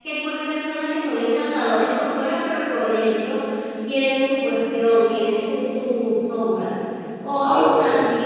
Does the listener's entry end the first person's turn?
No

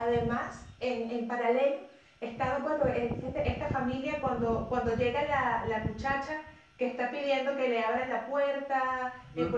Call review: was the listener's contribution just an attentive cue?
Yes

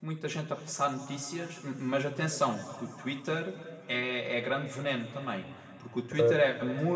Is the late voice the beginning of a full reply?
No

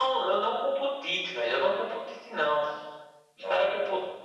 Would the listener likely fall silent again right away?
Yes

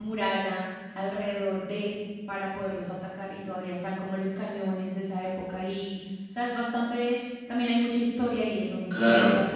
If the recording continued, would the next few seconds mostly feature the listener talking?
Yes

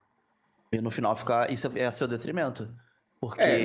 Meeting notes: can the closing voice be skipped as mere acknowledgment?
No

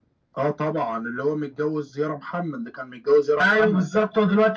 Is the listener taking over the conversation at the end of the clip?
Yes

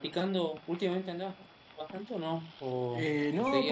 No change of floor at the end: No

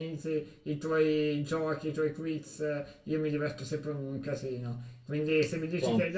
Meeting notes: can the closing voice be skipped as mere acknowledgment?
Yes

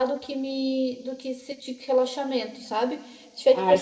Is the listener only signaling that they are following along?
Yes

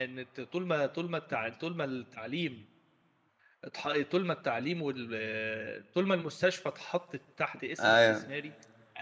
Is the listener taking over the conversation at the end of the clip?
No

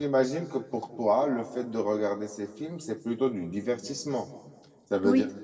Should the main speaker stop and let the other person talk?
No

